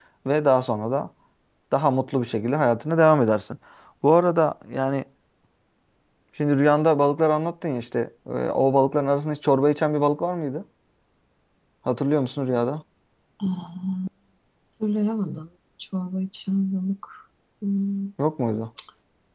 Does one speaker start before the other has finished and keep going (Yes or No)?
No